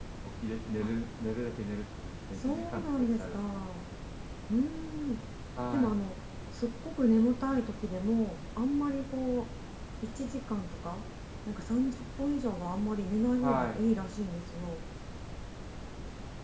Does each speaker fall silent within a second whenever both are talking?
No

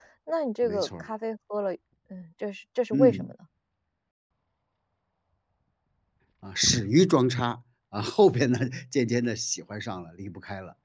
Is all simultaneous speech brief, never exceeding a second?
Yes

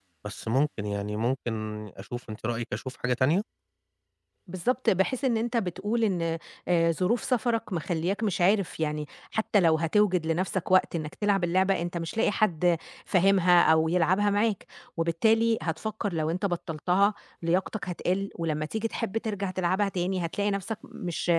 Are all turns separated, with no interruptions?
Yes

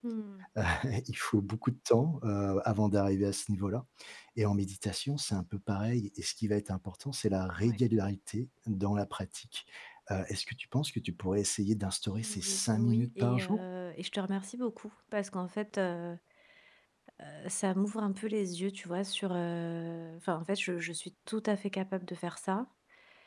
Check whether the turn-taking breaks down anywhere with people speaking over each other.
Yes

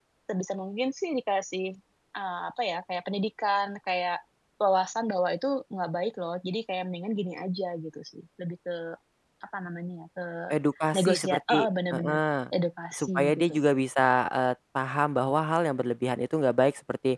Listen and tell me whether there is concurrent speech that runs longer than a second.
Yes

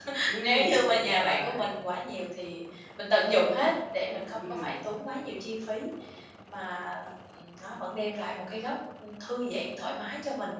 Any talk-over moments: Yes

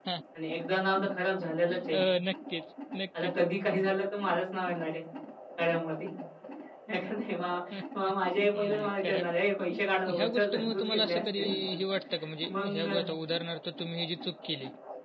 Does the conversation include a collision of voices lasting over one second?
Yes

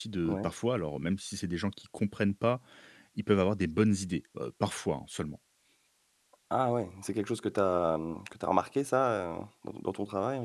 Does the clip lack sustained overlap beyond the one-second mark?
Yes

